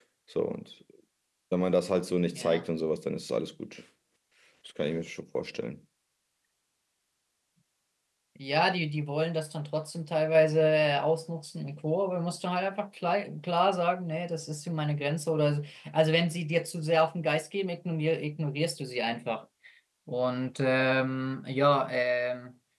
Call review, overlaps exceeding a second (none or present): none